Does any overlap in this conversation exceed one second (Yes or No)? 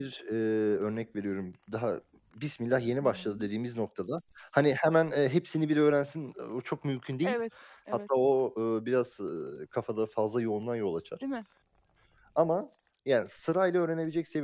No